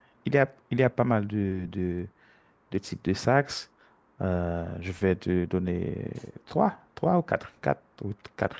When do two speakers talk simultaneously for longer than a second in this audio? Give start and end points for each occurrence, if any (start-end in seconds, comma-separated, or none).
none